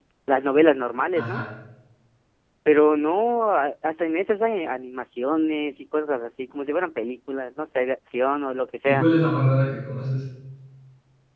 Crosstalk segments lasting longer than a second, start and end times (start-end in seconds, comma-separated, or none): none